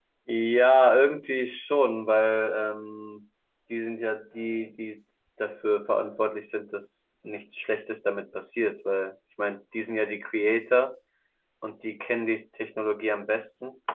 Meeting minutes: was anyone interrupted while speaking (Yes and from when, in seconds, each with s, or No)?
No